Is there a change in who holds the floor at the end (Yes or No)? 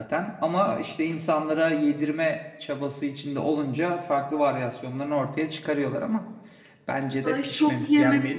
Yes